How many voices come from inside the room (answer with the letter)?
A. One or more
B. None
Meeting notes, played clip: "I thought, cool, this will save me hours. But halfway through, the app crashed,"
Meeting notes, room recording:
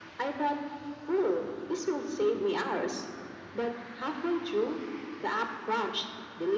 B